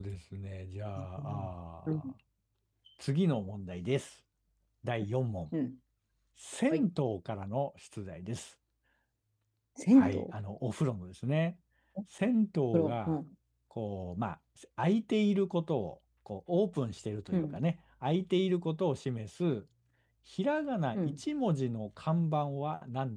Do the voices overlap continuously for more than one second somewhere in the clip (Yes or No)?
No